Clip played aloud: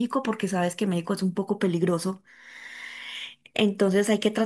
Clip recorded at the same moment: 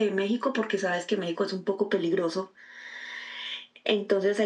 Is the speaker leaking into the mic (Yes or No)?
Yes